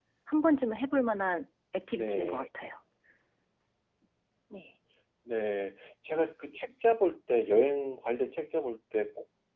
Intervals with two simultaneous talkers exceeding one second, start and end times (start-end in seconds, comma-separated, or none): none